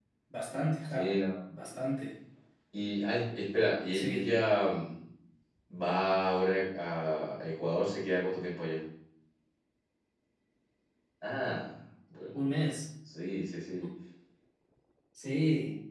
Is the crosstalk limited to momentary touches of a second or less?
Yes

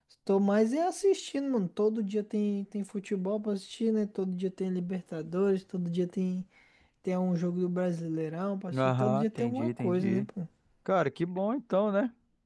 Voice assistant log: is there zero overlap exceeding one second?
No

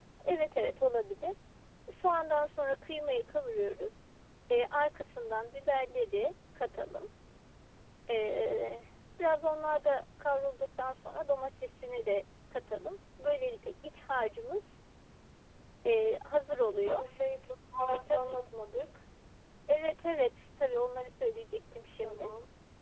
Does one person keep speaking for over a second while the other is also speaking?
No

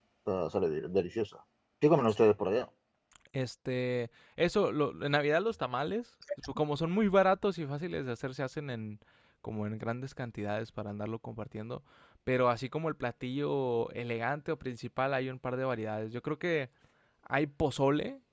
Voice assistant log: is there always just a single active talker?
Yes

